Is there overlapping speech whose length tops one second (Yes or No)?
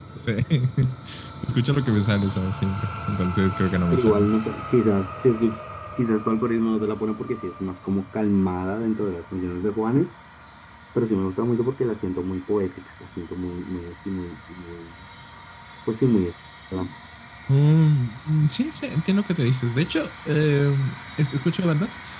No